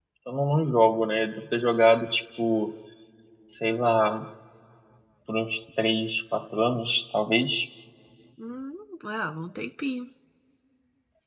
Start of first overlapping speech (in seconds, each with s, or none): none